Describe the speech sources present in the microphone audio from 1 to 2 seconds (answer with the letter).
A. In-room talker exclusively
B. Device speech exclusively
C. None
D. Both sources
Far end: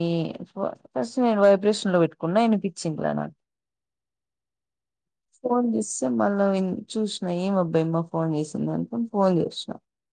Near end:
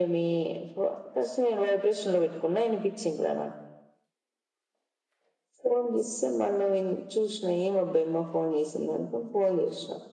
B